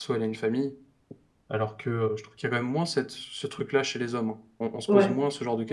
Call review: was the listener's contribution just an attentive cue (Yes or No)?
No